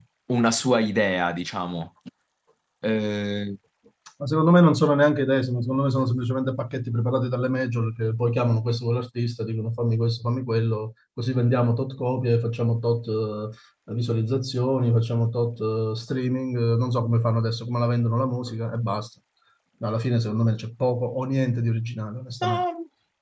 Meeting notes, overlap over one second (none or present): none